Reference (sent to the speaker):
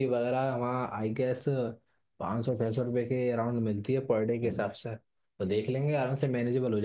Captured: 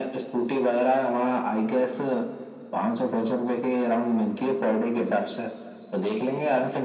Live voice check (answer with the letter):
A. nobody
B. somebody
A